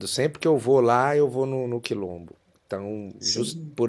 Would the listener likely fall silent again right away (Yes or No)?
Yes